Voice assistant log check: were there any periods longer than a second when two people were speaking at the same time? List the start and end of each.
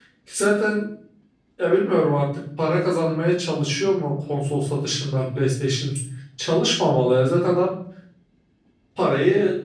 none

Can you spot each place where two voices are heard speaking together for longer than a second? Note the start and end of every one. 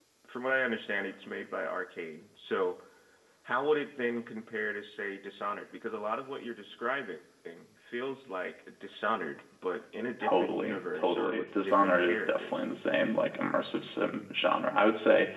10.3-12.6

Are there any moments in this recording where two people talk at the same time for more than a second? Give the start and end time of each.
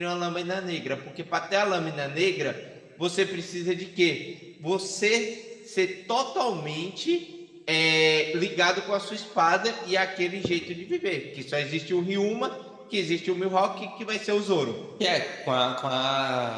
none

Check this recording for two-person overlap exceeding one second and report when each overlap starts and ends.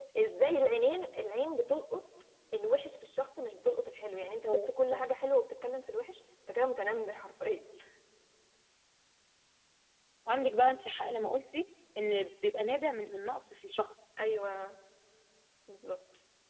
none

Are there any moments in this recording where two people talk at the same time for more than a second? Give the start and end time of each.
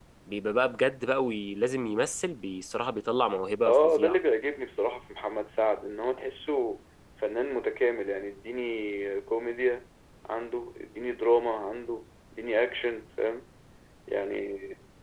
none

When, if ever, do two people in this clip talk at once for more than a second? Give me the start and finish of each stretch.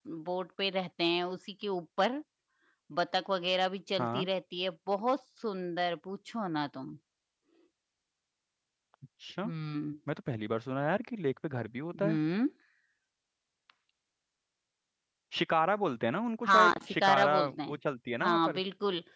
16.5-17.8

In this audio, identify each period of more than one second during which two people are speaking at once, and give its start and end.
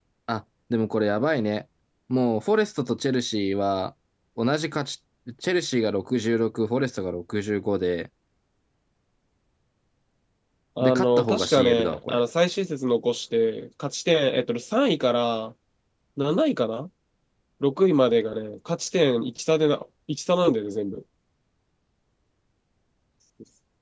10.8-12.2

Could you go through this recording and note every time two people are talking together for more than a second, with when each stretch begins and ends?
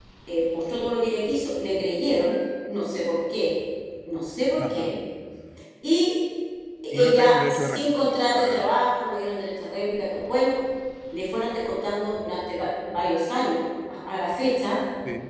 6.9-8.7

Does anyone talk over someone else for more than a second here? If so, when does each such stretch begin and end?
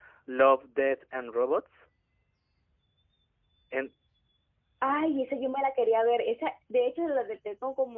none

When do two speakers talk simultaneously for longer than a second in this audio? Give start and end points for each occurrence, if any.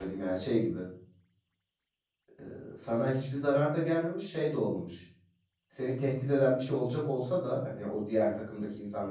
none

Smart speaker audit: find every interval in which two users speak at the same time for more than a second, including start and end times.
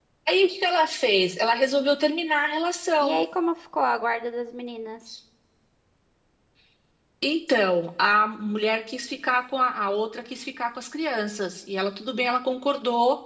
none

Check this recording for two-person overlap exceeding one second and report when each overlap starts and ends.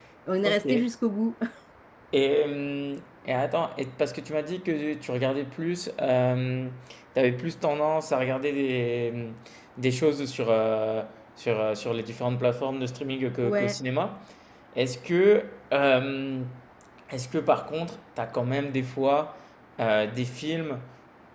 none

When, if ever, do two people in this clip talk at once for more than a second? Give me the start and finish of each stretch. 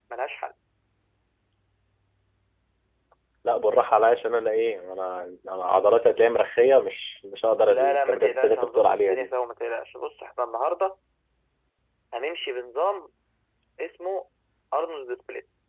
7.7-9.3

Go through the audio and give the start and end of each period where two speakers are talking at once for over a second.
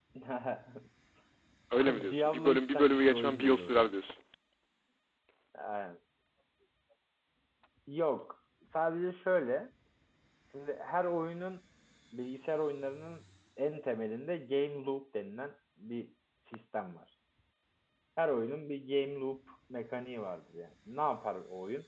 1.8-3.9

